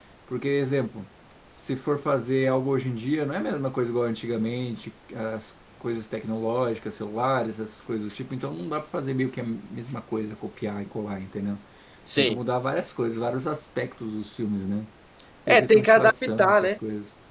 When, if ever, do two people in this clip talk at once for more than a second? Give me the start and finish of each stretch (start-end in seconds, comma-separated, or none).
15.5-16.7